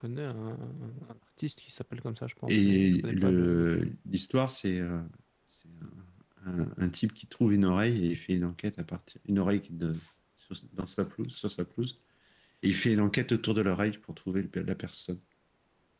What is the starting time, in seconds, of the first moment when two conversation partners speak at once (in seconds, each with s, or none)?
2.5 s